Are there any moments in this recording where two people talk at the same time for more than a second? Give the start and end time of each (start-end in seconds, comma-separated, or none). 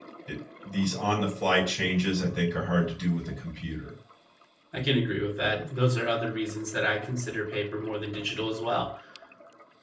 none